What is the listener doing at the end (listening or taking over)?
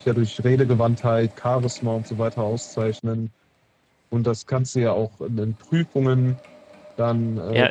taking over